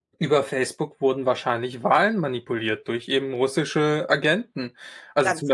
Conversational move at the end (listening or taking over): listening